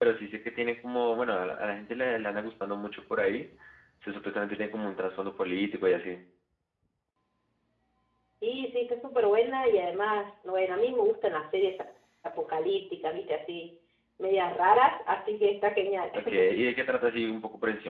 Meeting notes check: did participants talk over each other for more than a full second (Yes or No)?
No